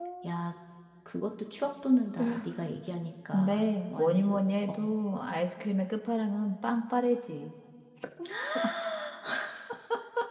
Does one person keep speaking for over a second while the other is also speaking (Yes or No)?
Yes